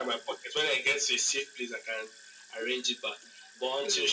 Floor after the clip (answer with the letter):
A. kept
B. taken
A